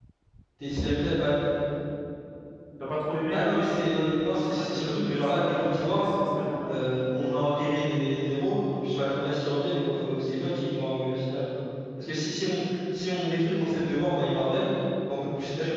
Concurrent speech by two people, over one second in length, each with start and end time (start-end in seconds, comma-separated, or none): 3.3-6.1